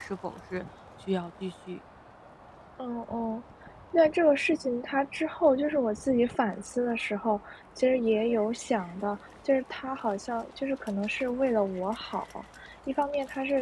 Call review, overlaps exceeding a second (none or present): none